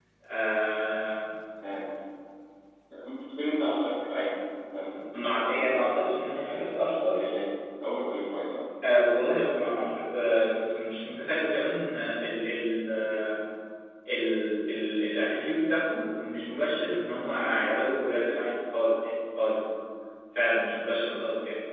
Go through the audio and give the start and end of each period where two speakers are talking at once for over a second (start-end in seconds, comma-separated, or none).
5.2-6.7